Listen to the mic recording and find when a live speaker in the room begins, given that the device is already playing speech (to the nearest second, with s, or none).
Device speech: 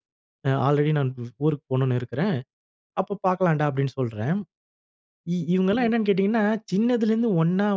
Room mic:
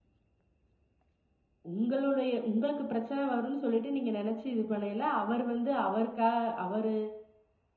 2 s